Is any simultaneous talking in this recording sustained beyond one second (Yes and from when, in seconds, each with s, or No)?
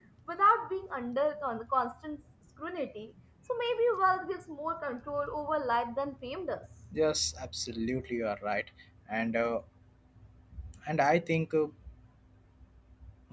No